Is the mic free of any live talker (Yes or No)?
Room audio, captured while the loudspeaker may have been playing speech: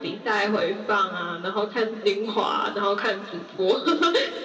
Yes